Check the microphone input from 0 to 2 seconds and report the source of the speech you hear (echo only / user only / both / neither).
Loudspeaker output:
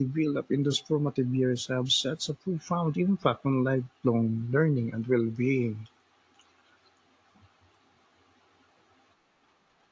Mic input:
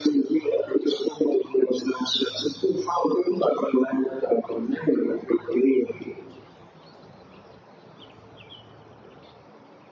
echo only